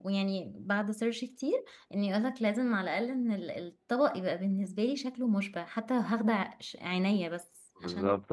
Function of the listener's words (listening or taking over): taking over